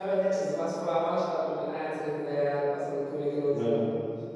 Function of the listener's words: listening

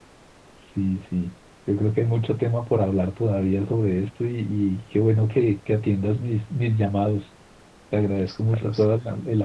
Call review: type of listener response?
listening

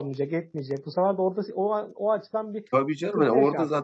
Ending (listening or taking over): taking over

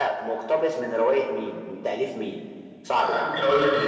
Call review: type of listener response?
taking over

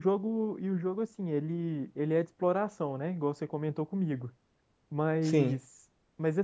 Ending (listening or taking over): listening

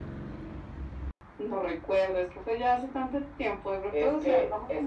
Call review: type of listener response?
taking over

